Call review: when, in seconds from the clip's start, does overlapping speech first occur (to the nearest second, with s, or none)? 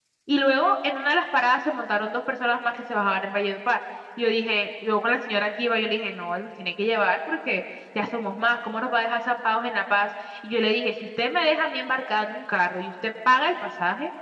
none